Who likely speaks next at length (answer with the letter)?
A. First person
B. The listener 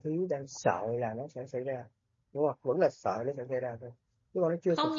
B